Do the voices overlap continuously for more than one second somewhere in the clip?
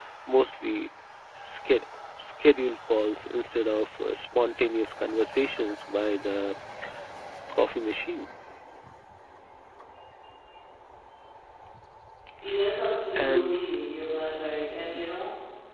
No

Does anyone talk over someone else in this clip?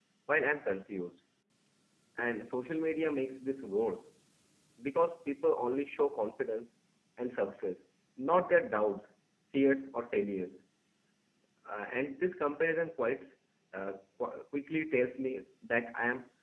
No

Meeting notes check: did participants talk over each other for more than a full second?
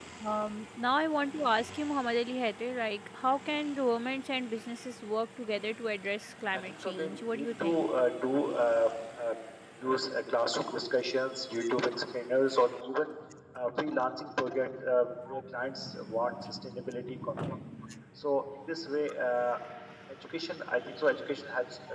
Yes, from 6.5 s

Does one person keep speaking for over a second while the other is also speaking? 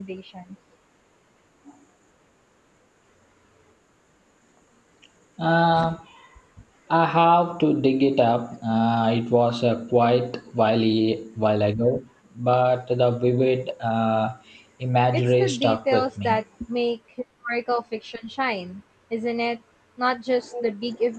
Yes, from 15.1 s

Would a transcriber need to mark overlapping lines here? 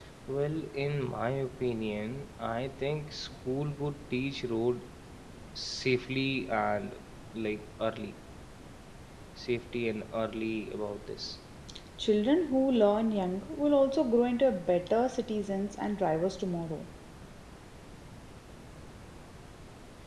No

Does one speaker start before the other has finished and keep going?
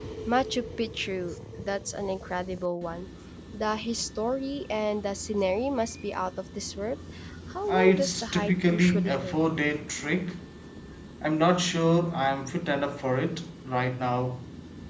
Yes, from 7.7 s

